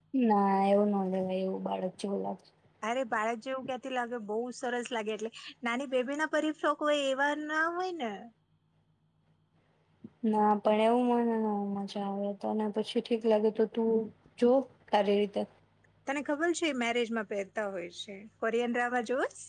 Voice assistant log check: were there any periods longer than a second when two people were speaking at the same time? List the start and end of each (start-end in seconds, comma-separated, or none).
none